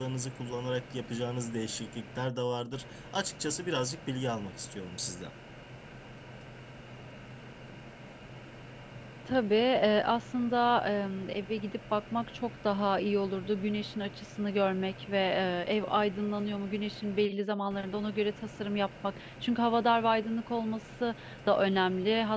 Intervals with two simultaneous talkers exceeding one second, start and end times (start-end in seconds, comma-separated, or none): none